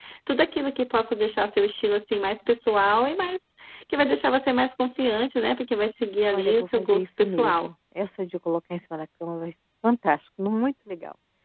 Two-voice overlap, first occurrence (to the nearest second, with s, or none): 6 s